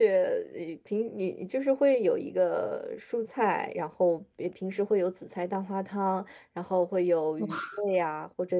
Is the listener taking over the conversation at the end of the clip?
No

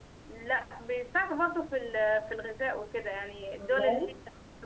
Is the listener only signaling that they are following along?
Yes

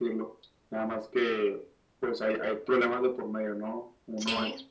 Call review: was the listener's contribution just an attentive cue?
Yes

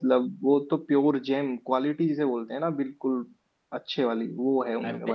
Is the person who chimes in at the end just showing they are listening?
No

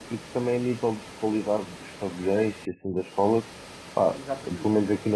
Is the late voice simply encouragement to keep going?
Yes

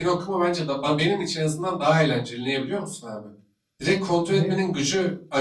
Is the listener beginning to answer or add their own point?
No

